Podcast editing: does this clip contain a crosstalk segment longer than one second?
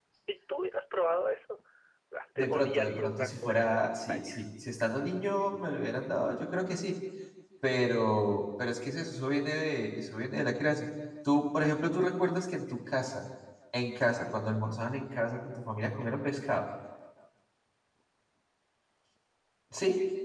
Yes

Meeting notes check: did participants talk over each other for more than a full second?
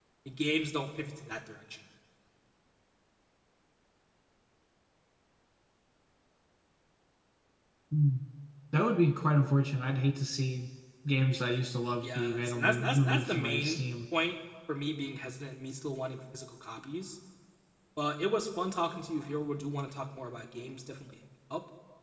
Yes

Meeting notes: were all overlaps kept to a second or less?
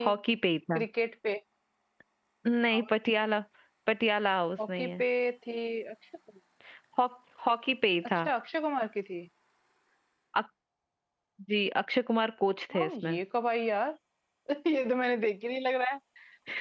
Yes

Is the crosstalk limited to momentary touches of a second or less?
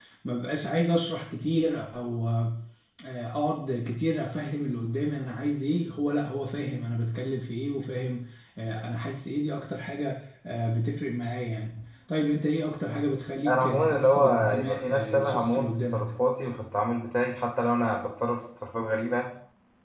No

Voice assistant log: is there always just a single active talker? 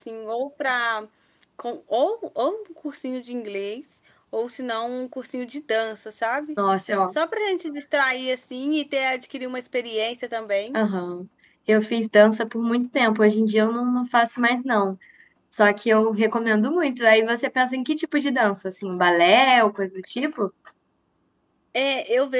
Yes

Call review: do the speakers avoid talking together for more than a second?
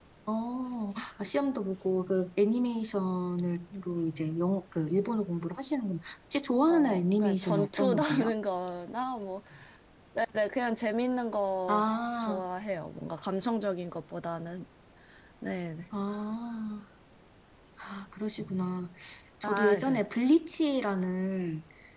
No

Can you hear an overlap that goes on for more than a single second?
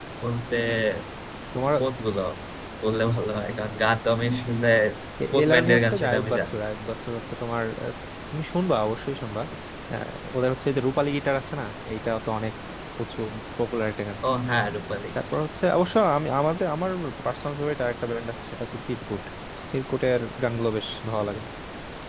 Yes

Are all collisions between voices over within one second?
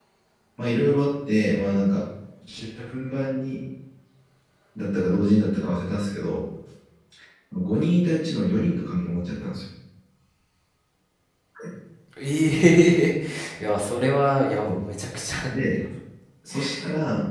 Yes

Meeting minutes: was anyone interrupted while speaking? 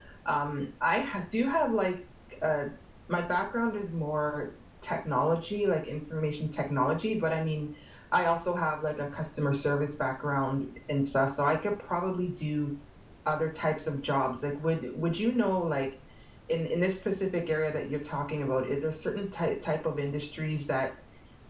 No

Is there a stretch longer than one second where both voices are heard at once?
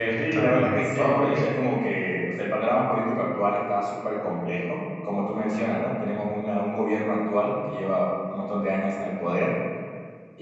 Yes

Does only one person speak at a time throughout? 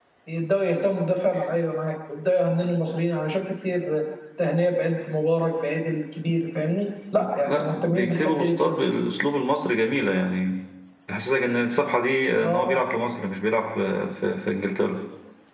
No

